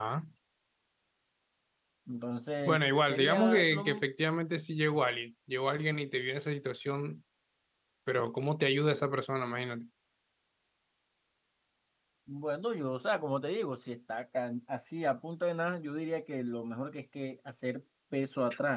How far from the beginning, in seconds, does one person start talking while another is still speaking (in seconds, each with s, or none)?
2.6 s